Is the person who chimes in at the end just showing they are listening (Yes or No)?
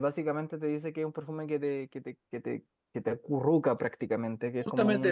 No